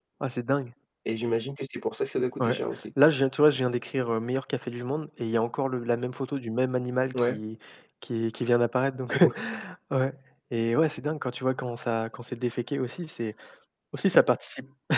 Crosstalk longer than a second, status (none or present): none